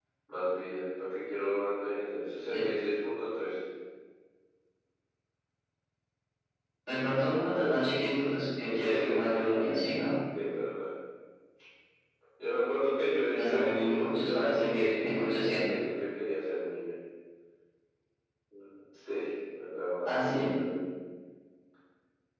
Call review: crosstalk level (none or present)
present